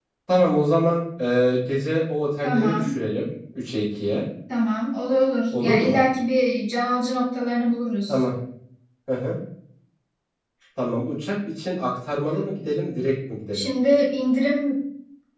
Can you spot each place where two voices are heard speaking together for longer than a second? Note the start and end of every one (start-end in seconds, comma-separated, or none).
none